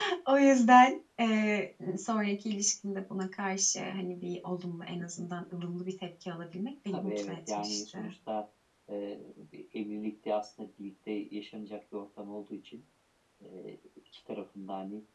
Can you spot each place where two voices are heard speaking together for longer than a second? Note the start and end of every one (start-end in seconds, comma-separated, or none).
6.9-8.1